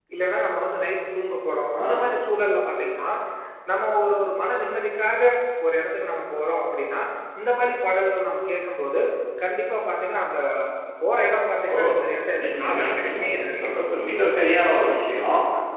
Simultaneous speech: Yes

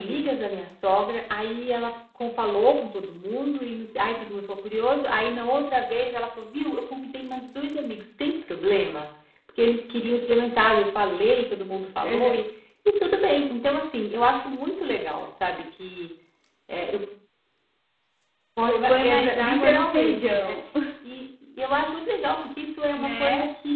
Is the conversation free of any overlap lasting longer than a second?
No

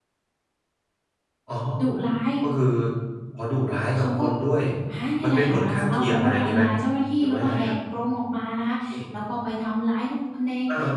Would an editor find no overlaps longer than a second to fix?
No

